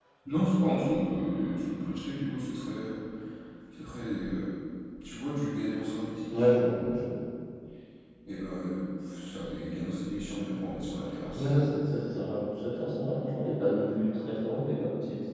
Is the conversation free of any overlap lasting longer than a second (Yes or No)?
Yes